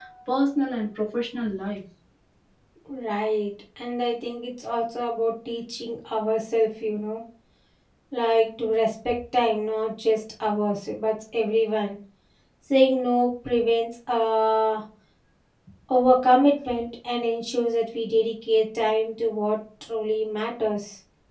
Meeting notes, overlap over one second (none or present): none